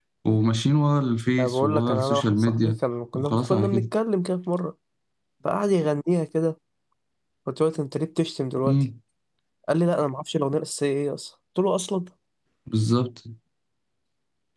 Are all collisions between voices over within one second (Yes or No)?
No